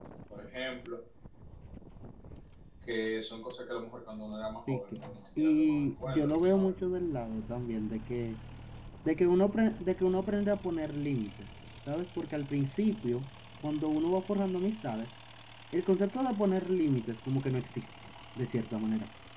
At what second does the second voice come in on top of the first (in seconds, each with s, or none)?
4.7 s